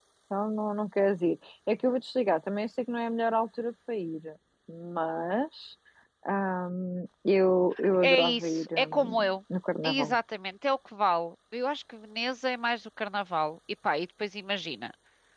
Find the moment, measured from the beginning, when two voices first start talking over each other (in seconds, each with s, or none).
8.0 s